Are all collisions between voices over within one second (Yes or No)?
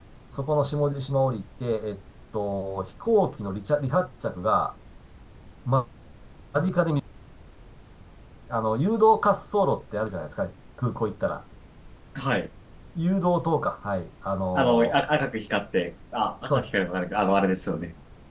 Yes